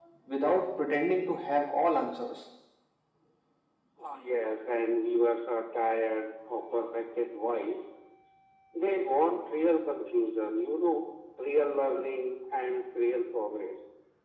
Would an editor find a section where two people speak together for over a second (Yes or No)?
No